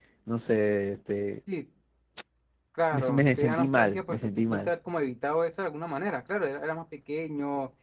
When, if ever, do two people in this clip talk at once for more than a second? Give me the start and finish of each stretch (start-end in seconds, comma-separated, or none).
2.9-4.7